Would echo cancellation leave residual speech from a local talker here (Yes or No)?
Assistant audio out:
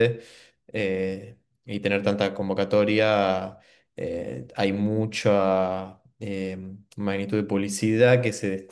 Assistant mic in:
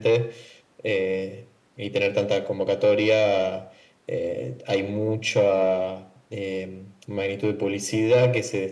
No